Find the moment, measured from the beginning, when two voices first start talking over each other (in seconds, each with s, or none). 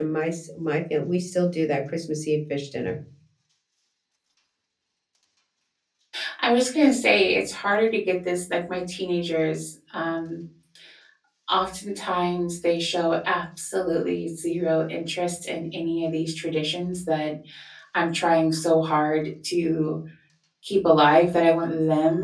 none